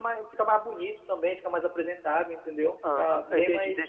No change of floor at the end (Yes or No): No